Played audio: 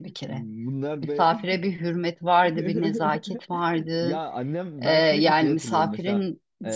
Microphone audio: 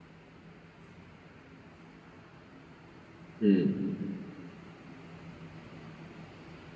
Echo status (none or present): none